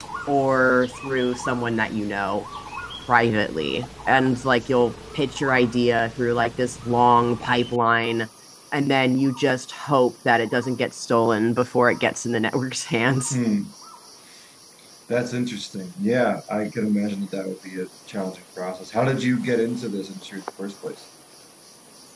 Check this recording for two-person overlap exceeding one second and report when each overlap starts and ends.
none

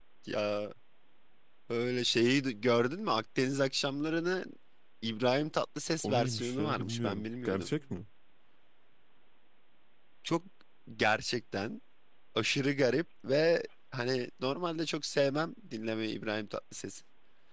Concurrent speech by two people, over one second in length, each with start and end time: 6.0-7.7

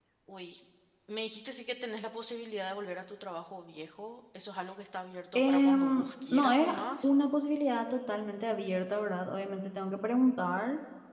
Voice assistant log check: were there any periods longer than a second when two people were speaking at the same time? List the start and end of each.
5.3-7.1

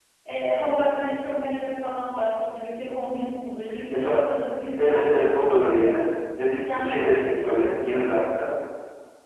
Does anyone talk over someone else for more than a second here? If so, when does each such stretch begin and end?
4.8-6.0, 6.6-8.0

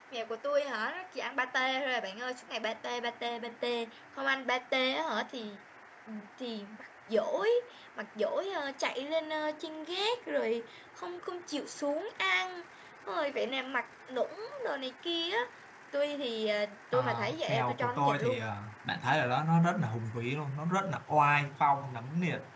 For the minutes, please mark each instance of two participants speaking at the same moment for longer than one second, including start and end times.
16.9-18.4

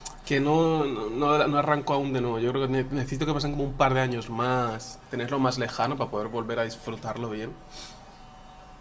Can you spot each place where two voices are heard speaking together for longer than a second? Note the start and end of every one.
none

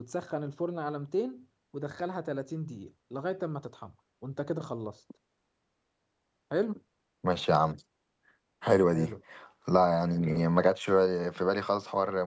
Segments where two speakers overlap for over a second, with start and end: none

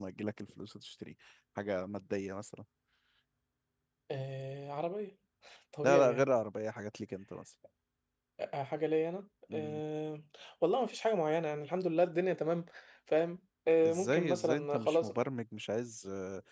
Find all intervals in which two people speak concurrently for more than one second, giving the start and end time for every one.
13.8-15.1

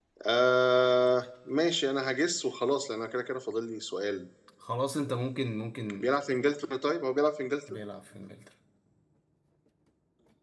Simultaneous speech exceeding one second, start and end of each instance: none

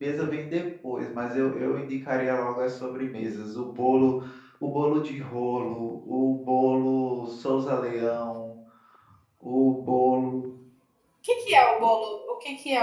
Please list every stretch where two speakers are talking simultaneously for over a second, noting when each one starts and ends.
none

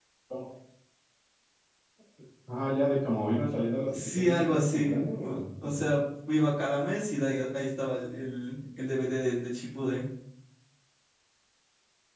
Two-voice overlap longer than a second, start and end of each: 3.9-5.8

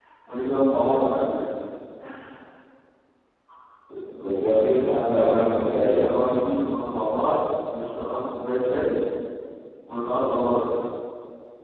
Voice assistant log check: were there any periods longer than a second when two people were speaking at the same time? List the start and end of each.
4.9-6.4

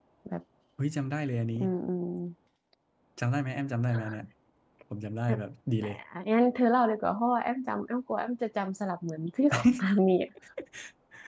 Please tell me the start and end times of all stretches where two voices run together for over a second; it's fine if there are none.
none

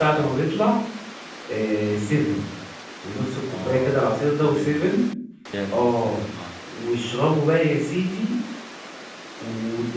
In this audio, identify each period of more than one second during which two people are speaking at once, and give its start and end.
3.5-4.9

